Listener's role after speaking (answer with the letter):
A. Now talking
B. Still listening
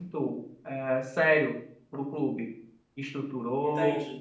B